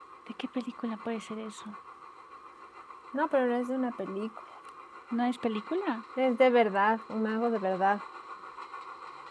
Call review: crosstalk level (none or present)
none